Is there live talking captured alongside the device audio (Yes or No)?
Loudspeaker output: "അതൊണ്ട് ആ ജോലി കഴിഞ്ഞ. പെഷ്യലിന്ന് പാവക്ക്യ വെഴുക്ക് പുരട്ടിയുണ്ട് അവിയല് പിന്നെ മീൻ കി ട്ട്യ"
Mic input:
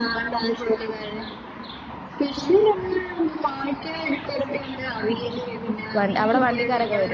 Yes